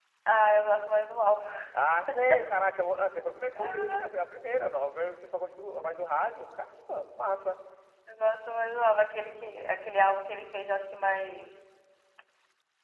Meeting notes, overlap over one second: none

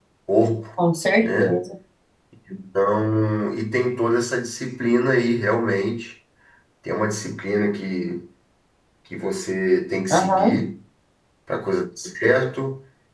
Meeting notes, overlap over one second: none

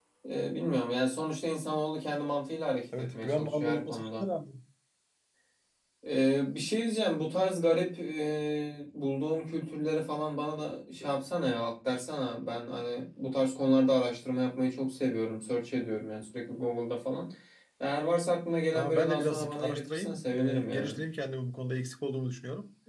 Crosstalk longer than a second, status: present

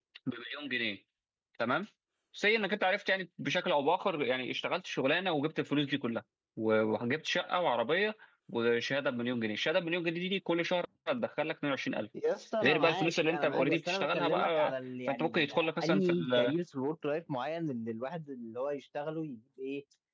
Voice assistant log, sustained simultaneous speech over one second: present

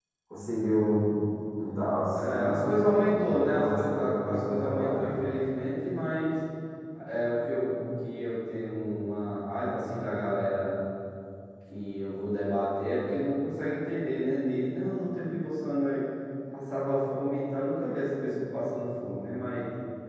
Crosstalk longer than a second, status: present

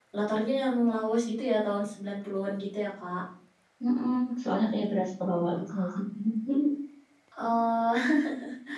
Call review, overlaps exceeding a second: none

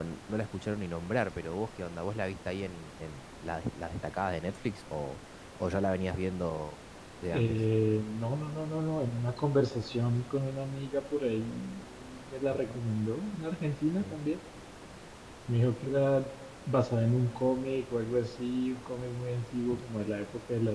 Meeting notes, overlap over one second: none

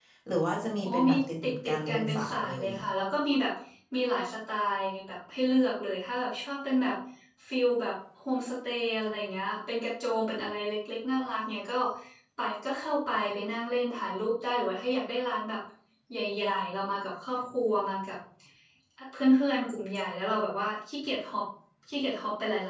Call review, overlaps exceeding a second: present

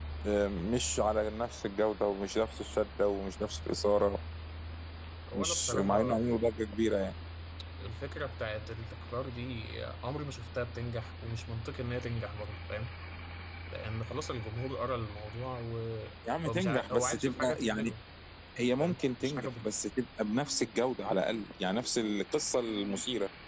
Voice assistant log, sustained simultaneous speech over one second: present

